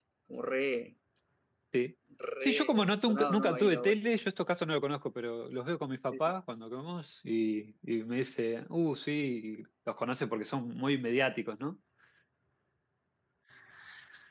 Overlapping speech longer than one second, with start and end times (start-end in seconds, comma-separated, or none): 2.4-4.0